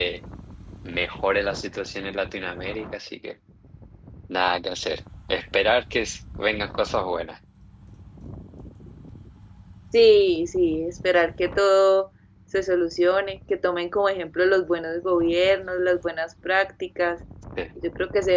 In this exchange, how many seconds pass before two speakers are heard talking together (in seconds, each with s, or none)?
none